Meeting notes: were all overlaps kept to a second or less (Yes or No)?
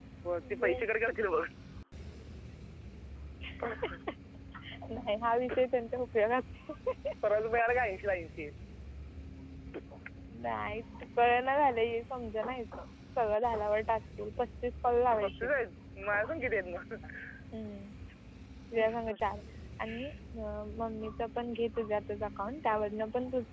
Yes